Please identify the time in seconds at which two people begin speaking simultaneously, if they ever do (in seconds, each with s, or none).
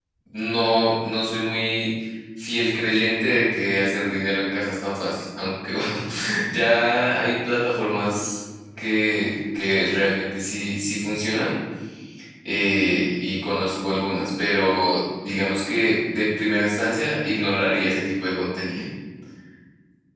none